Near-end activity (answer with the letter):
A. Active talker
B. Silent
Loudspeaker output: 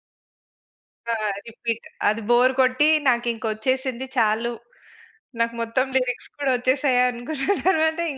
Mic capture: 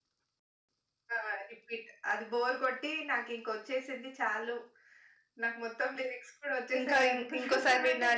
A